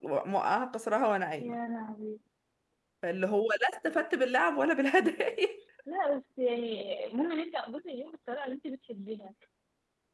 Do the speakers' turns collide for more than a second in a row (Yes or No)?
No